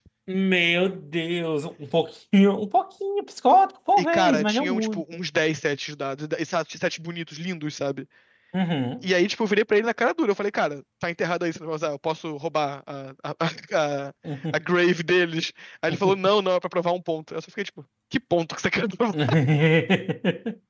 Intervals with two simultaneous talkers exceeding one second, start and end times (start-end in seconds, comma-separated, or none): 4.0-5.2